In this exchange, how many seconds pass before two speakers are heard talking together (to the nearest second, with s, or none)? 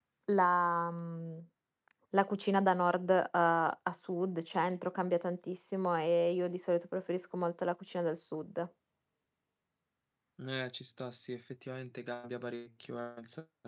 none